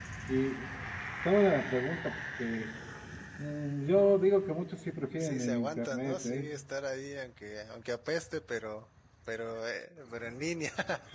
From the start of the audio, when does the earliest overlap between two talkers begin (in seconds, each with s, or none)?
5.2 s